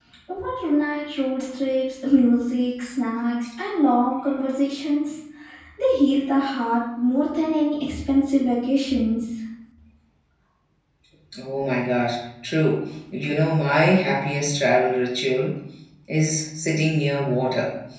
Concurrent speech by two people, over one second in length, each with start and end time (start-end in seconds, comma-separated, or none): none